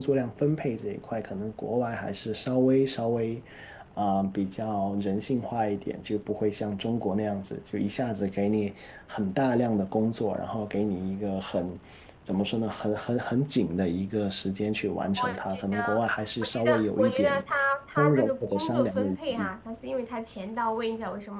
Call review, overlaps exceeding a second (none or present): present